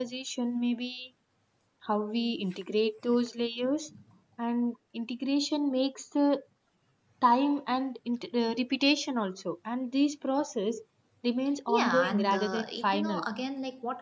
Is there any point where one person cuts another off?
Yes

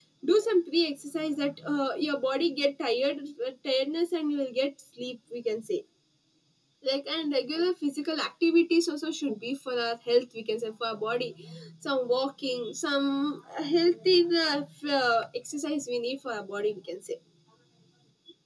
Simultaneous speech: No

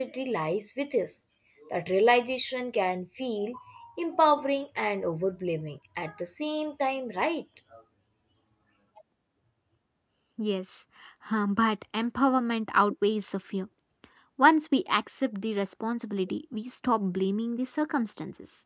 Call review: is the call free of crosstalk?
Yes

